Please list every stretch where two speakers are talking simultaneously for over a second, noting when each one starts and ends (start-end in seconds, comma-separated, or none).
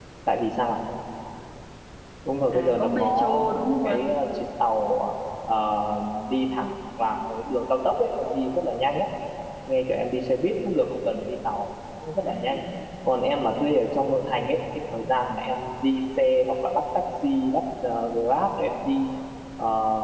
2.5-4.1